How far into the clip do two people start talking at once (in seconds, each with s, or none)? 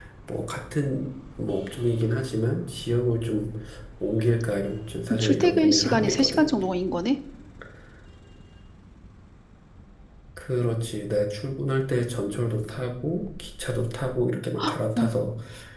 5.2 s